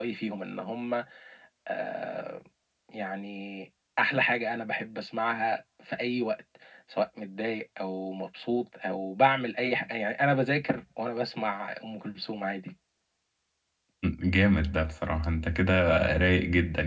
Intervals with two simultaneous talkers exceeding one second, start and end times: none

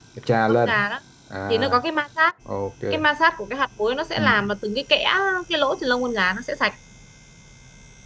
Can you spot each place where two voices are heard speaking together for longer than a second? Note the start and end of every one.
none

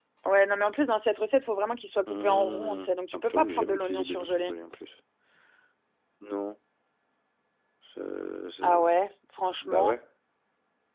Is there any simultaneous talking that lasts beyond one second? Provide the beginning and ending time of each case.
2.1-4.5

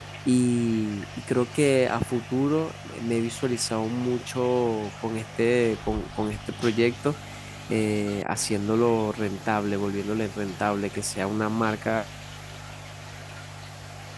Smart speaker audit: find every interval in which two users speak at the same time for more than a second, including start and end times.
none

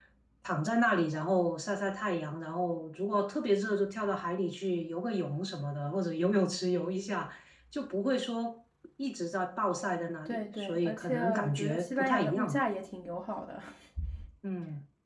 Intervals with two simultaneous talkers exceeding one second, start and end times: 10.2-12.6

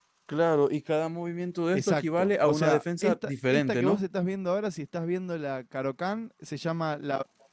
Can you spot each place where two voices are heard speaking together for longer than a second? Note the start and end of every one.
1.7-4.0

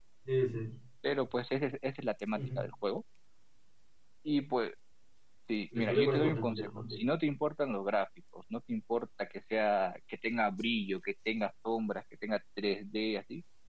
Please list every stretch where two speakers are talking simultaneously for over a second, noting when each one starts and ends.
5.7-7.0

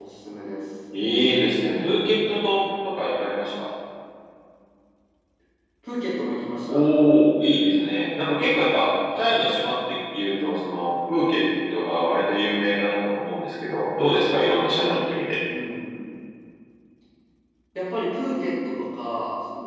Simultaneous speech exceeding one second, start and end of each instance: none

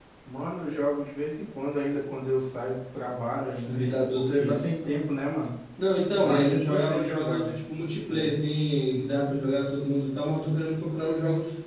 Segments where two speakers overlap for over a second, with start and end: 3.7-5.0, 6.2-7.5

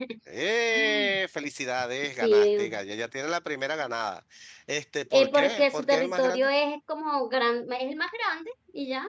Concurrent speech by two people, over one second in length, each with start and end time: 5.1-6.5

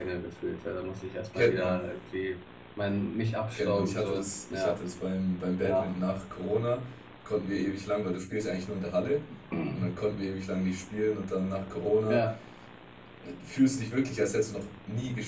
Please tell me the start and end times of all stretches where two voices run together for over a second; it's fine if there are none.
3.5-4.8

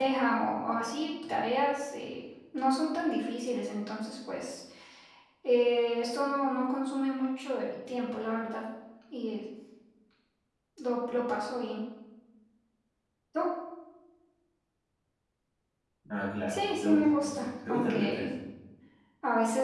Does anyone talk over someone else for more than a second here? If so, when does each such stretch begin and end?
16.5-18.3

